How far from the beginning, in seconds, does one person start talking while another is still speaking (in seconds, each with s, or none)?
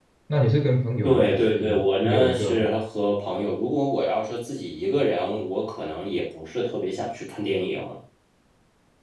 1.0 s